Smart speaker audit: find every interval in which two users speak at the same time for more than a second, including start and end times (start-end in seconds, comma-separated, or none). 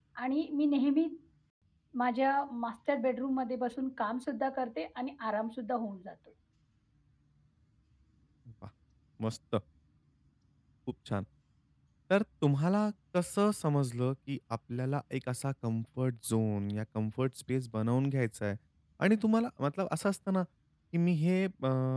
none